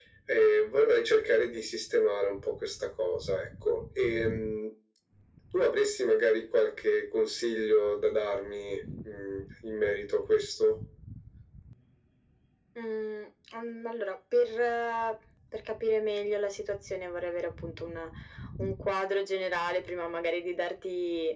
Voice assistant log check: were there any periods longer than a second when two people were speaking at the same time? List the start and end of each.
none

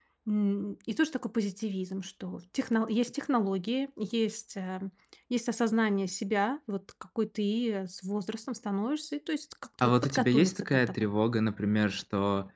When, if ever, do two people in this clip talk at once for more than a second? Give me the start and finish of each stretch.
9.8-11.1

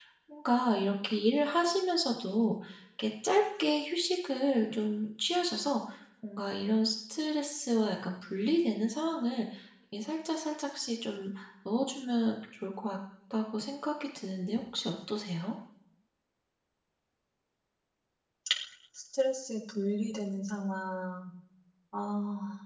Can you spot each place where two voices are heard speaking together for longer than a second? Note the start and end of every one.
none

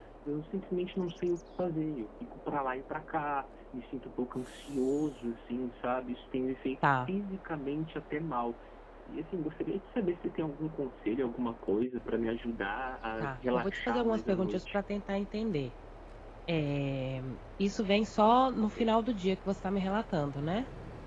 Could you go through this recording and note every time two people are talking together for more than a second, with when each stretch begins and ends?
13.2-14.8

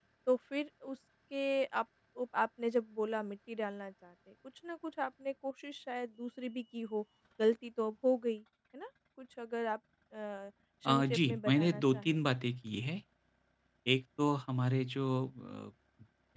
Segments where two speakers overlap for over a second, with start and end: 10.8-12.1

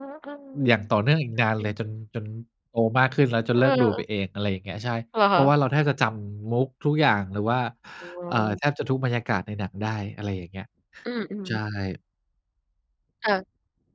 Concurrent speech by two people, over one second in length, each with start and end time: none

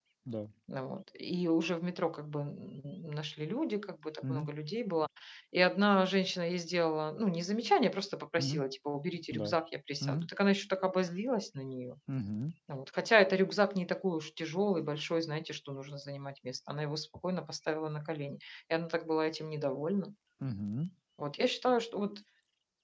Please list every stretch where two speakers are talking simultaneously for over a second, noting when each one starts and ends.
none

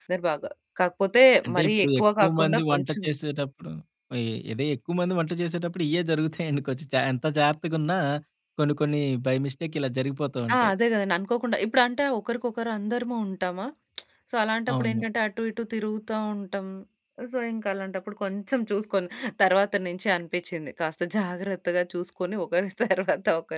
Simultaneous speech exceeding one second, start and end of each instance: 1.4-3.0

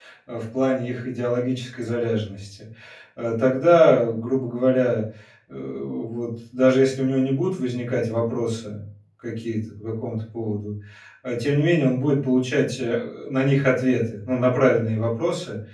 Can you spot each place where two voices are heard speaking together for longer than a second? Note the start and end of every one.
none

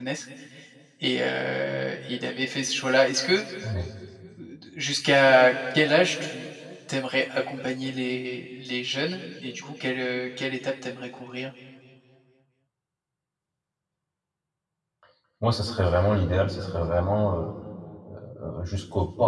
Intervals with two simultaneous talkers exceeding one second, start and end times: none

